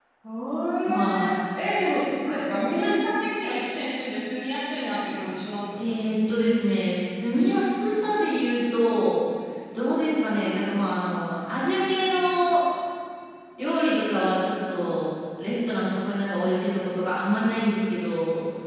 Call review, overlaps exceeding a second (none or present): none